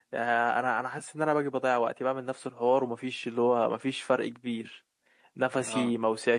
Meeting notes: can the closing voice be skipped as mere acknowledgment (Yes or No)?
Yes